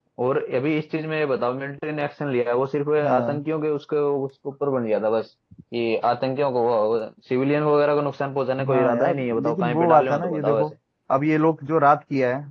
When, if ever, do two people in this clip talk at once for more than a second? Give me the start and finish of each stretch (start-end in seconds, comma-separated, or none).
8.7-10.7